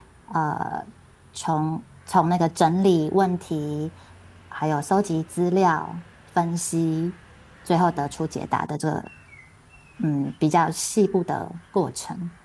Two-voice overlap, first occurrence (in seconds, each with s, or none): none